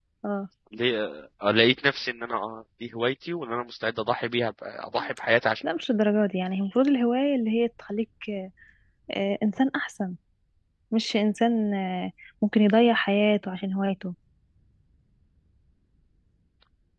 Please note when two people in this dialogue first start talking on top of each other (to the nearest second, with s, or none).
none